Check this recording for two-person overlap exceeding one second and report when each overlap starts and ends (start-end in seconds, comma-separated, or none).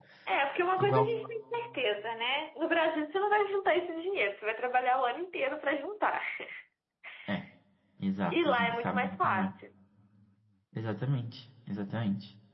8.3-9.5